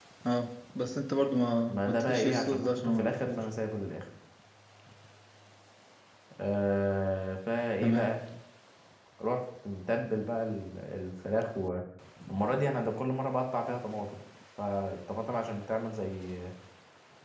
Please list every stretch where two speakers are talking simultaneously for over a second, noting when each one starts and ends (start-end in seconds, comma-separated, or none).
1.7-3.4